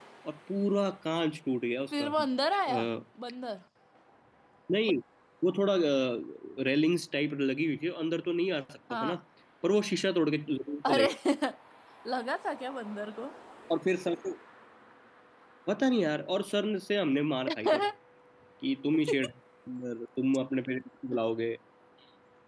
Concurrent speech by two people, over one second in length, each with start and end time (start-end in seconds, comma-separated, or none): none